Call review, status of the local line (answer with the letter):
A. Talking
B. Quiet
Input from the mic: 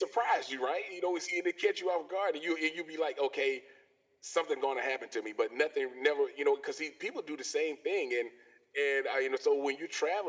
B